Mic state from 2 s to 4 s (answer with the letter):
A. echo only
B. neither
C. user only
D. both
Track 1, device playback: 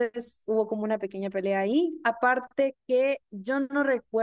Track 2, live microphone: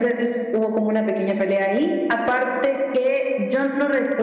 A